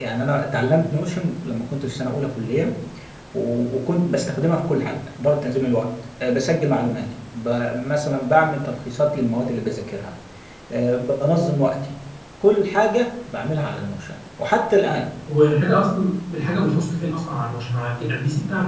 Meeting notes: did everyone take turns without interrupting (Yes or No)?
Yes